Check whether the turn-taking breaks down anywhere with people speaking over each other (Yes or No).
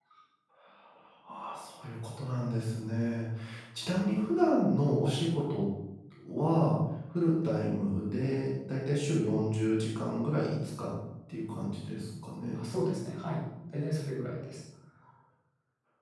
No